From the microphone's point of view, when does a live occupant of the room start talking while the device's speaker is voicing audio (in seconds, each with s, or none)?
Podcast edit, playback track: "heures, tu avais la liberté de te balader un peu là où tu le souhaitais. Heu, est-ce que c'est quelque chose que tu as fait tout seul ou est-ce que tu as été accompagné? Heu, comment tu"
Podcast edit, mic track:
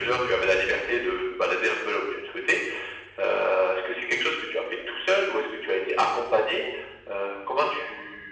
none